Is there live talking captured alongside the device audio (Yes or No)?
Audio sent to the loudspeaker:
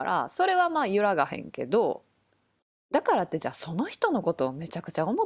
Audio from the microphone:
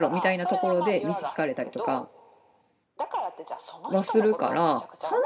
Yes